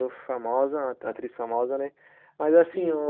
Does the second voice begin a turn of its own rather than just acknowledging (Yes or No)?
No